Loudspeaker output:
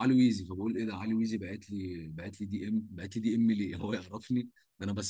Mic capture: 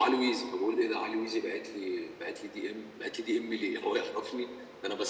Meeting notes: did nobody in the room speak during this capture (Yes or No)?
Yes